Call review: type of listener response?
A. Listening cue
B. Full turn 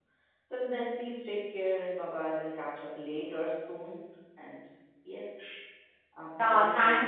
B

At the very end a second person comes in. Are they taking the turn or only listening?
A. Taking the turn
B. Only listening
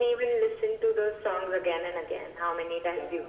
A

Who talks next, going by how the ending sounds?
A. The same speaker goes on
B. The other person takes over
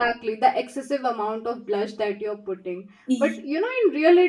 A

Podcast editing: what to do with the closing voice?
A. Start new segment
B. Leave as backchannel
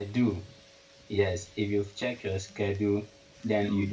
B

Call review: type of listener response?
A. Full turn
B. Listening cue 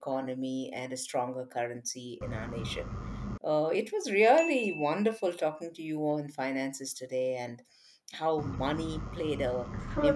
B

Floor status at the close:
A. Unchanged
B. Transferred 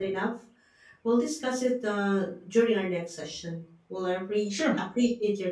A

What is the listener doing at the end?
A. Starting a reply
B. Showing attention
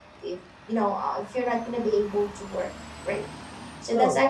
B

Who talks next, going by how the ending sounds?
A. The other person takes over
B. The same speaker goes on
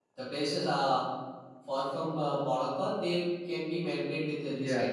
A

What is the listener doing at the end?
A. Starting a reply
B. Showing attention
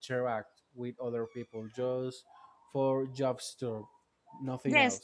A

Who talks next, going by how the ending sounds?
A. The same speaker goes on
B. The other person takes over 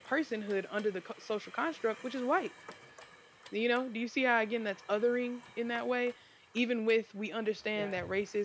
A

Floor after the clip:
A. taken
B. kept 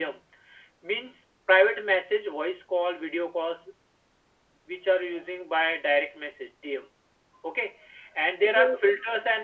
B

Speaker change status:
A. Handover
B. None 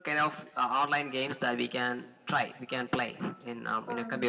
A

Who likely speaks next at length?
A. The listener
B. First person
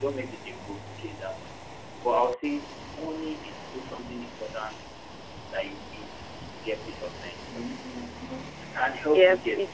A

